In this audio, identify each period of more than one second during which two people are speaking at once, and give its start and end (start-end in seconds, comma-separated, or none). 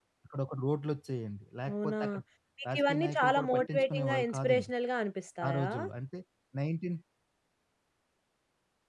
2.7-4.7